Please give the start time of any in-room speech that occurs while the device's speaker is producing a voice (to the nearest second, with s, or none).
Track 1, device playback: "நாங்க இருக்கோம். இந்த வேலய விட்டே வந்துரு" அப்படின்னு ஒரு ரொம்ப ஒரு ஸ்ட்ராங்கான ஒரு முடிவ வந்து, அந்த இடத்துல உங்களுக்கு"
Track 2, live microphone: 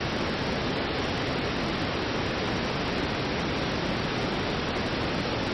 none